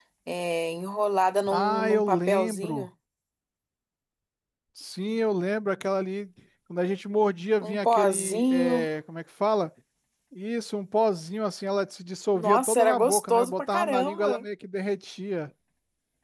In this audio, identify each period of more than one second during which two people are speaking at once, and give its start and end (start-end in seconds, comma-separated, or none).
1.5-2.9, 7.6-8.9, 12.3-14.4